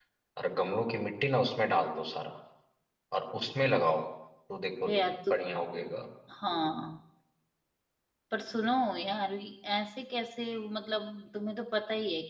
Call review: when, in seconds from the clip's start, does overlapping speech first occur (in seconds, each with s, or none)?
none